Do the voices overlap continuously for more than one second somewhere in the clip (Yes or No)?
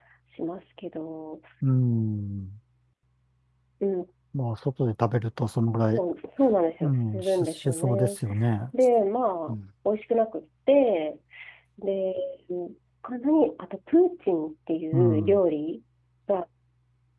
Yes